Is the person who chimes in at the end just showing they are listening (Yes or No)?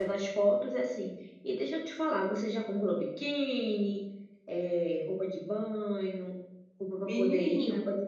Yes